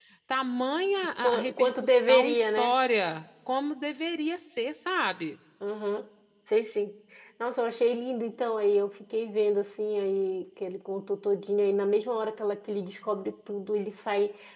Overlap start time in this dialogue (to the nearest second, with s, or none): 1 s